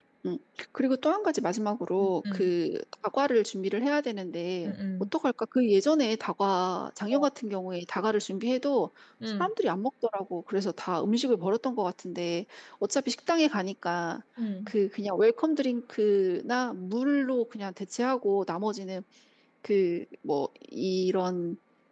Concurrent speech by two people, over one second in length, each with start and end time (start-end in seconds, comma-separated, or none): none